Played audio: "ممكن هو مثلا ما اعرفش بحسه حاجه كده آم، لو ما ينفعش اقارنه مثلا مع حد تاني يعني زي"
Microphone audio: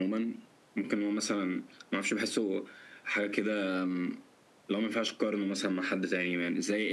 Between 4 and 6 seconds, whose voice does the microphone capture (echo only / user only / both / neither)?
echo only